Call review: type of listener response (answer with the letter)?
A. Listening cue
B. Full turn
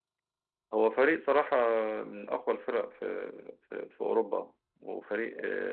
A